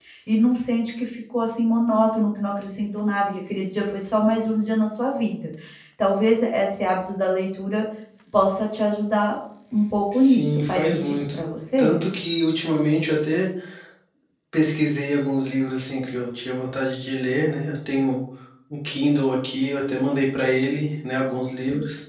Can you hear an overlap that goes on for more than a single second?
Yes, from 10.1 s

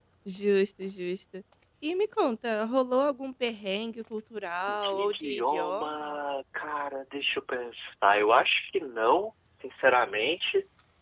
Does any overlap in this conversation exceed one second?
Yes, from 4.7 s

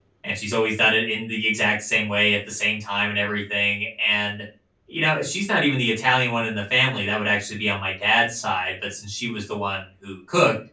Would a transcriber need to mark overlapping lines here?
No

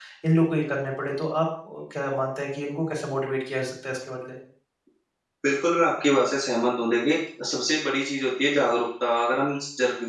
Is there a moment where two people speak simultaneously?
No

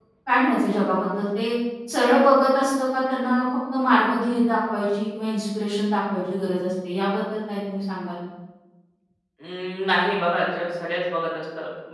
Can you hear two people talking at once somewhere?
No

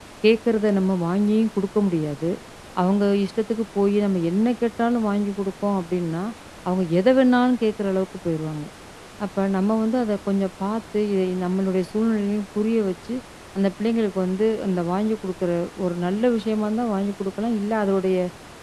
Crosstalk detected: No

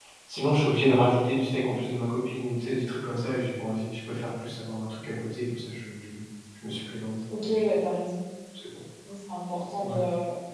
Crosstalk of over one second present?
No

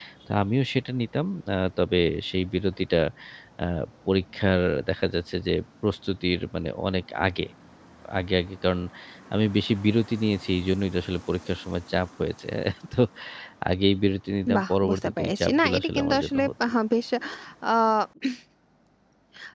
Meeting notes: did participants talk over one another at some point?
Yes, from 14.6 s

